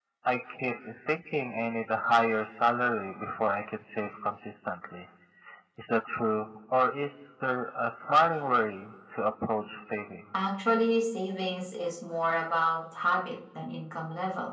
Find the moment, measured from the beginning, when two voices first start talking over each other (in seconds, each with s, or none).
none